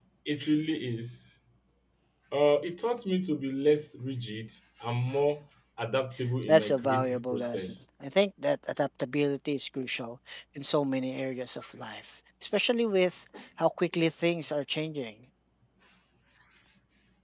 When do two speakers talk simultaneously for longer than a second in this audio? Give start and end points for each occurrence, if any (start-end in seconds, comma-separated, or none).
6.5-7.7